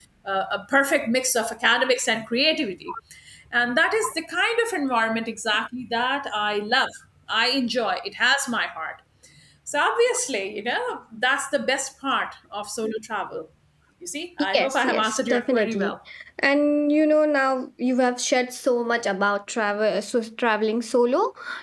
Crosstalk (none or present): present